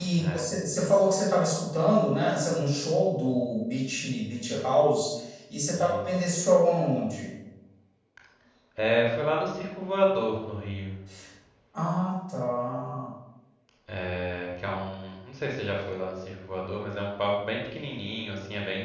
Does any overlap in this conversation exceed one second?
No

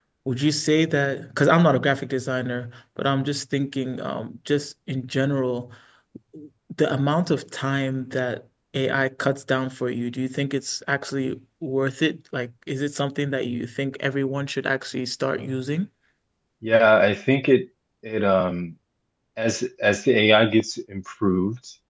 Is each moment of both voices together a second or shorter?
Yes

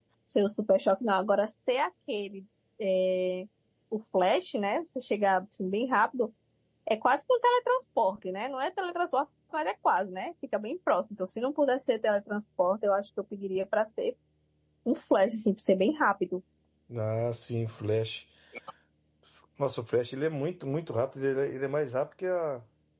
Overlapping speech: No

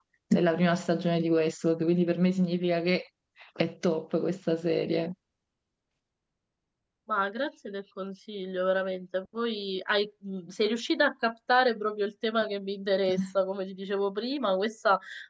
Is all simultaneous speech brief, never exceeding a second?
Yes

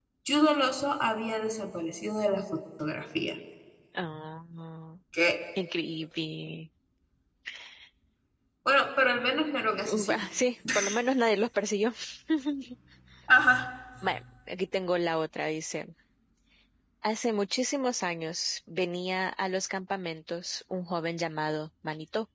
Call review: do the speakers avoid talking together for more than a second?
Yes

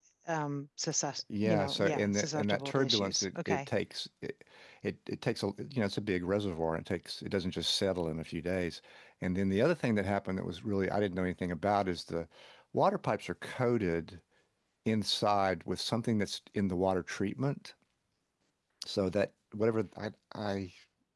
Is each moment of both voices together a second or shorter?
No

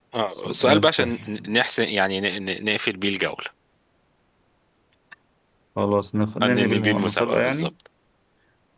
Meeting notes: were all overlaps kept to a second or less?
No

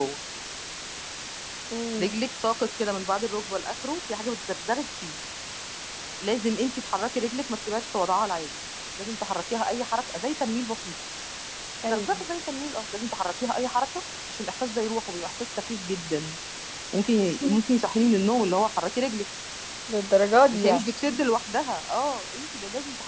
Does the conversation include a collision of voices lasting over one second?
No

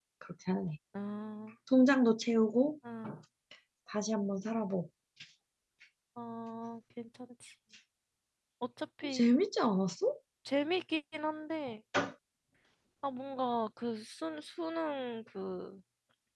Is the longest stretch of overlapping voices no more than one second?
Yes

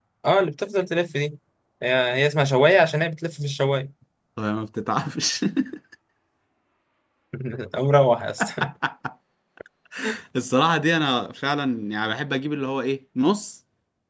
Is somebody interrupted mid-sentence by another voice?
No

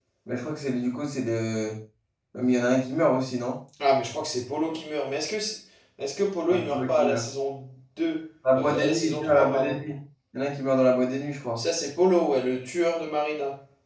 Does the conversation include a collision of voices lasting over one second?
Yes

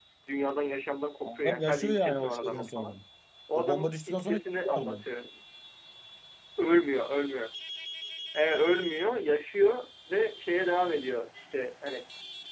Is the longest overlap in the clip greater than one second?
Yes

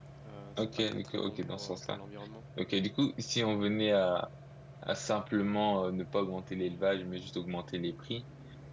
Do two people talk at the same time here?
Yes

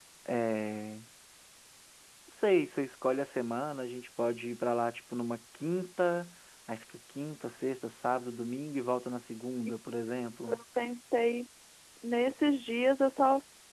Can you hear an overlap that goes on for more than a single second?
No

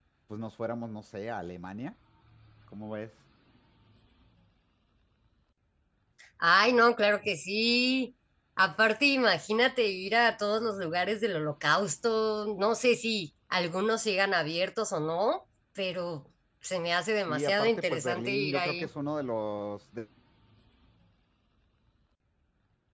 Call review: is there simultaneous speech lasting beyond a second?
Yes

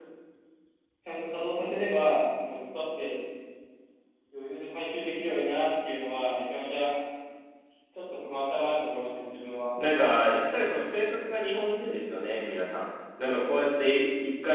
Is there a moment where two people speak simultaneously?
No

